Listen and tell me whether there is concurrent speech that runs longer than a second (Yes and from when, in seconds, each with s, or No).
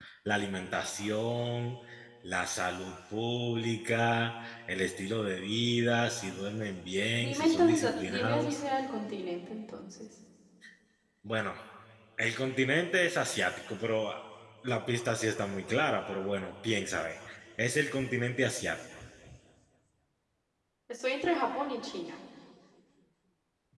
Yes, from 7.2 s